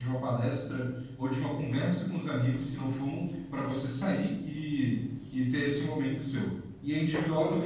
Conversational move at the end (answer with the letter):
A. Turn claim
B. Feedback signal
B